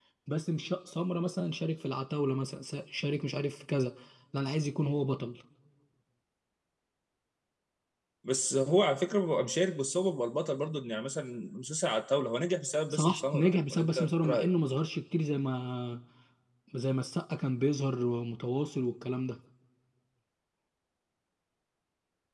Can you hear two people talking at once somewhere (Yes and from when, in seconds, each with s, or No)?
Yes, from 12.9 s